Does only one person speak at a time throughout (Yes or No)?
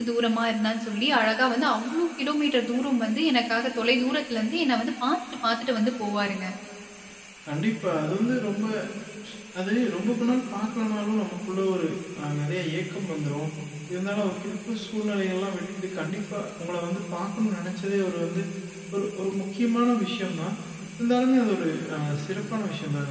Yes